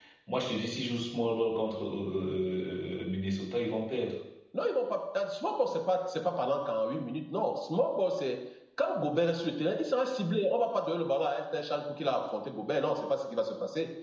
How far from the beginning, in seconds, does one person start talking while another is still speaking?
none

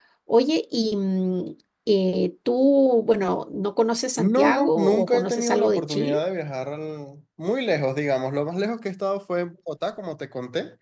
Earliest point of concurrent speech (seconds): 4.2 s

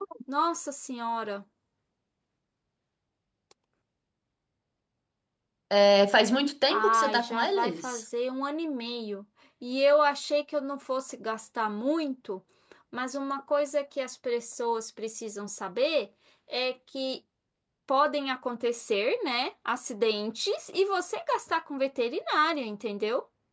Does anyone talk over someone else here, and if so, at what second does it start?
6.7 s

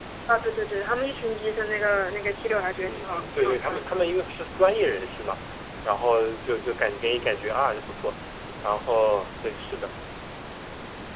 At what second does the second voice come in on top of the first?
2.8 s

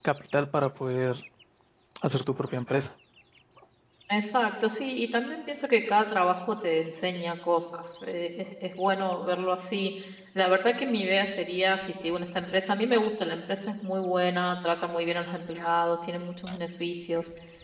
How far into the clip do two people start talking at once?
none

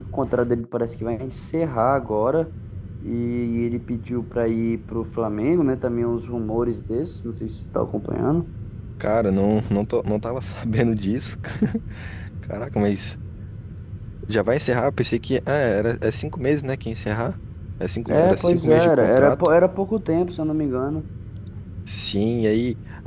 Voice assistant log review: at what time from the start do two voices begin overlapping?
18.1 s

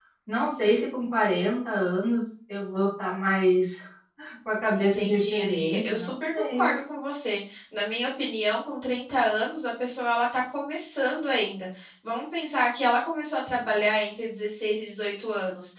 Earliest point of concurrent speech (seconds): 4.8 s

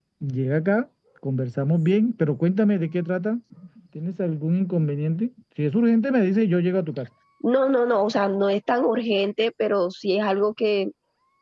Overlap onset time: none

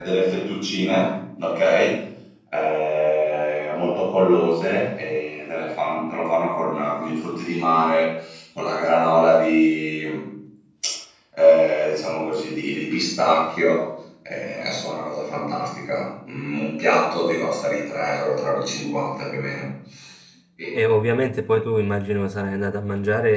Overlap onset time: none

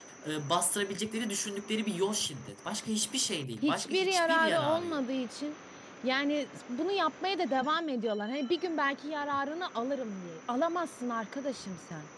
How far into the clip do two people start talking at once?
3.6 s

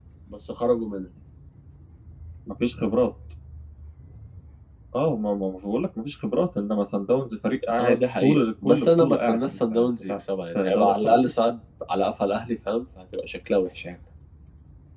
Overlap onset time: 7.8 s

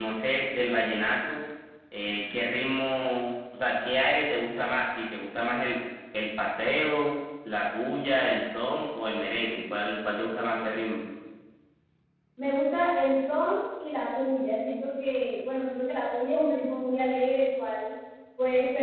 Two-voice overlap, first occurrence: none

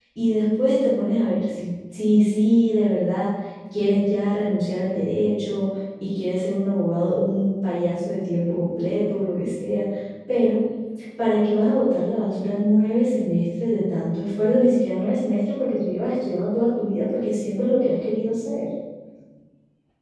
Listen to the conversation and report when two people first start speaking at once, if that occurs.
none

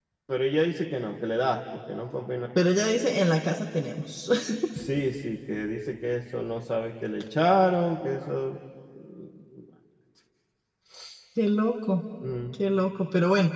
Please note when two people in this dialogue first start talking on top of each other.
none

